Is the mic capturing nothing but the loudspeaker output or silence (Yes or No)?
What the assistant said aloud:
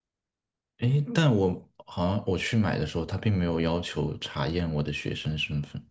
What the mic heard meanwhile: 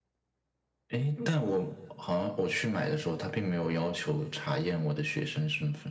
Yes